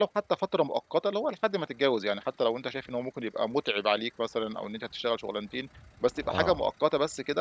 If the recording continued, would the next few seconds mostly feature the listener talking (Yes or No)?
No